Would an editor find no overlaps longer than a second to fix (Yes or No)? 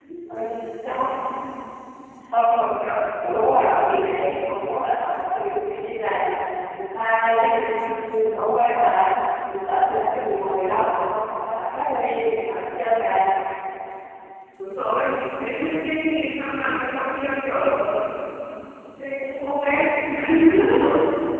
Yes